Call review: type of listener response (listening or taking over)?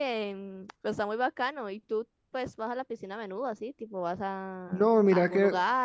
taking over